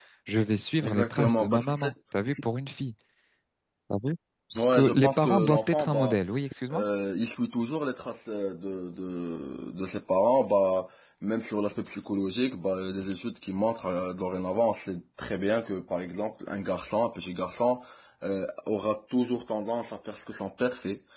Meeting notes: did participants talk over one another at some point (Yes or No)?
Yes